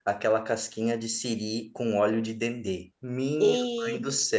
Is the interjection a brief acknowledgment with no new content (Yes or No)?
Yes